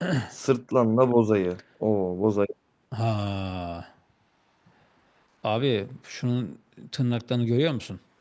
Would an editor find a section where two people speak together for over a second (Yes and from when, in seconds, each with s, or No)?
No